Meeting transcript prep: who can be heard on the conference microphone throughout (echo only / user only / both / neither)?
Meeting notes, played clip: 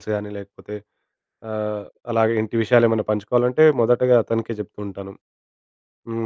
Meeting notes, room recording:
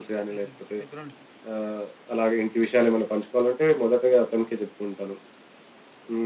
both